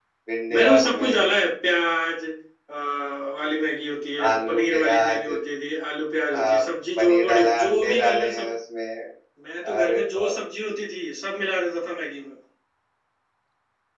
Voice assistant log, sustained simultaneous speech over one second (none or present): present